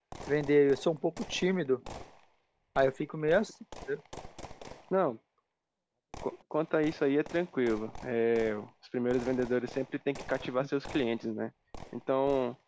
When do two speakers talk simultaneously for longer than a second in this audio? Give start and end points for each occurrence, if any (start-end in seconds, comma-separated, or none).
none